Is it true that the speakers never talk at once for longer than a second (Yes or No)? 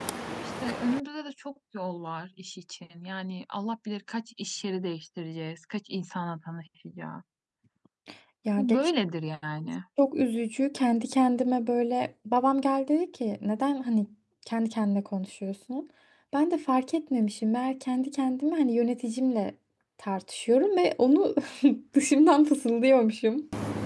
Yes